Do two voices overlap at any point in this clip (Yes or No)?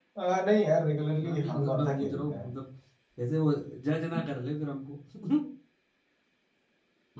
Yes